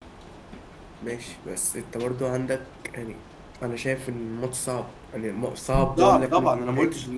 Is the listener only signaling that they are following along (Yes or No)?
No